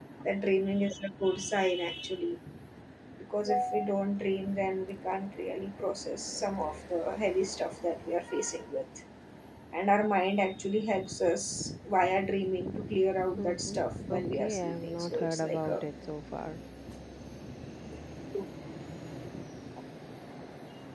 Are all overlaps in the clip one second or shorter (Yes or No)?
No